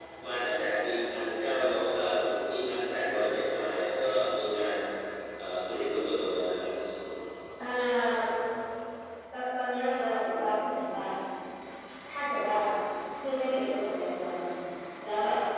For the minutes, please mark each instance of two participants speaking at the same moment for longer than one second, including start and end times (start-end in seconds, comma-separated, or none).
none